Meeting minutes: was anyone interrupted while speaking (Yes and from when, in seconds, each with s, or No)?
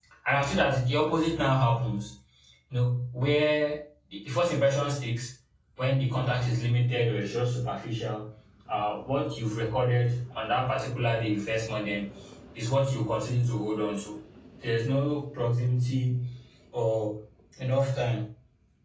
No